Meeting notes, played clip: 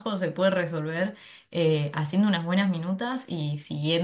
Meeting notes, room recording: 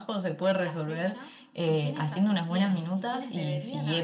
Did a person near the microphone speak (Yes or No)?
Yes